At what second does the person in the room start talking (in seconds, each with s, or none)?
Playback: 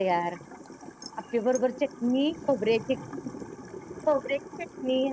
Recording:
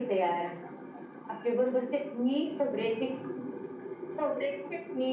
none